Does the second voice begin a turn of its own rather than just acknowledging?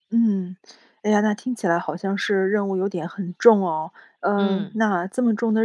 No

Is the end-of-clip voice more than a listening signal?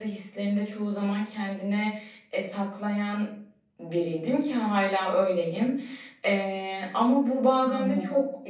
No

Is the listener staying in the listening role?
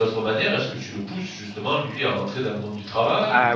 No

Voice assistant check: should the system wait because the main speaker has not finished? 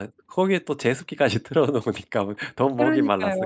No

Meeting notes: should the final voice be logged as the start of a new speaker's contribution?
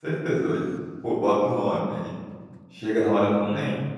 No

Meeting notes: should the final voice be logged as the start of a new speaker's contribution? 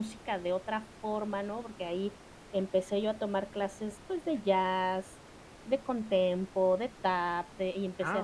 Yes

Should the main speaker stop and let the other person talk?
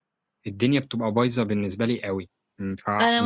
Yes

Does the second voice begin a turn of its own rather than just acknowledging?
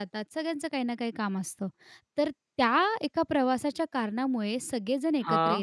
No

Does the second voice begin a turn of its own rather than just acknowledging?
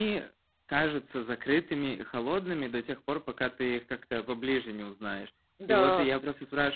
No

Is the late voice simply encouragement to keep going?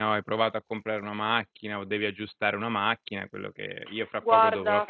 Yes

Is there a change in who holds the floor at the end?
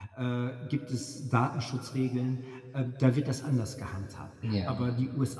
No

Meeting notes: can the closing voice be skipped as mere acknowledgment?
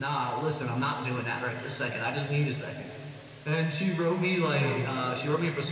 Yes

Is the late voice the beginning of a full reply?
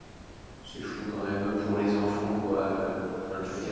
No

